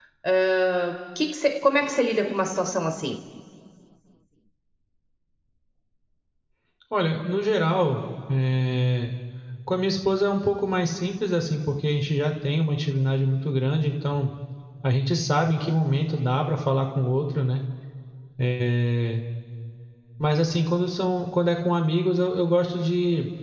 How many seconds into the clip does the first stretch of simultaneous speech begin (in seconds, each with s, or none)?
none